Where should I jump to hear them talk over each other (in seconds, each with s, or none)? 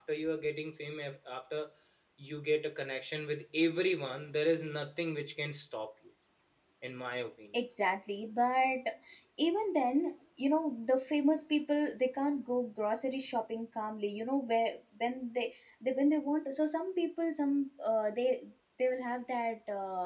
none